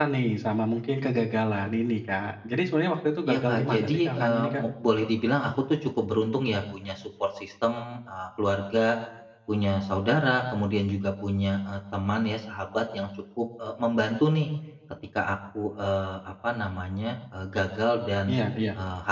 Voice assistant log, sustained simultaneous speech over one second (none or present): present